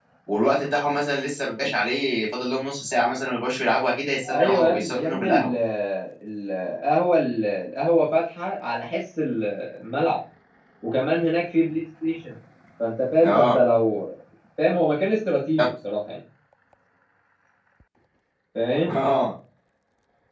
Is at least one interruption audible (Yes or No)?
Yes